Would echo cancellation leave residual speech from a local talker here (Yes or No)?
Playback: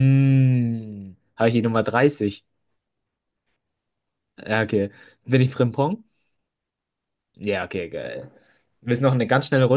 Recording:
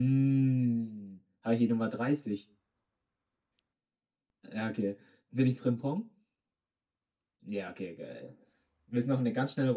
No